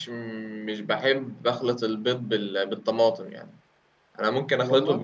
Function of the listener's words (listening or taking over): listening